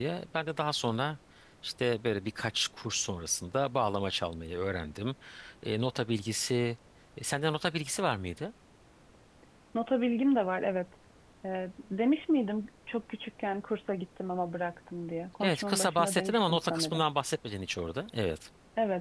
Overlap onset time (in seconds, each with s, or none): 15.4 s